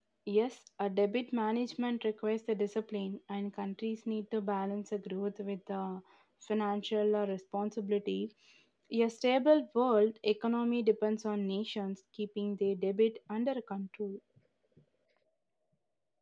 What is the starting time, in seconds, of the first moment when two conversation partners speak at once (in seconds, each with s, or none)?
none